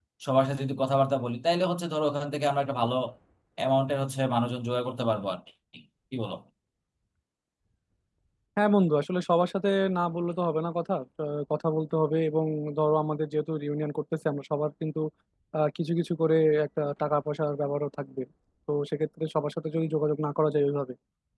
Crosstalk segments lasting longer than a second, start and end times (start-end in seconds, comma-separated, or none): none